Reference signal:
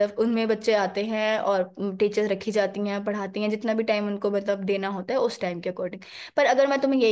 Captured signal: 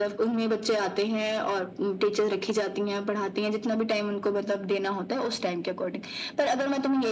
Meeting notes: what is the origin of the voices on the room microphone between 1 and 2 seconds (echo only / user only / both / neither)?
echo only